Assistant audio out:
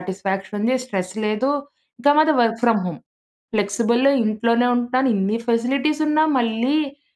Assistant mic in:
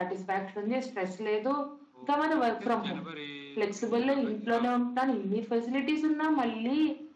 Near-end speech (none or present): present